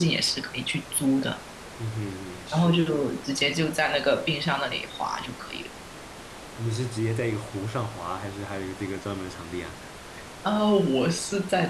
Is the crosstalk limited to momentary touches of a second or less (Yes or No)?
Yes